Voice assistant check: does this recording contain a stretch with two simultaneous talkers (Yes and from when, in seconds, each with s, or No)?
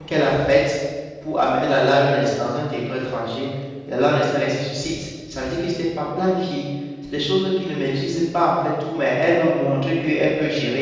No